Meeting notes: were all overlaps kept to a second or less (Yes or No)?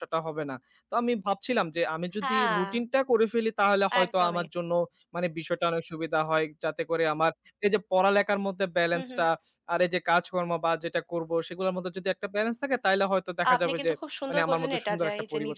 No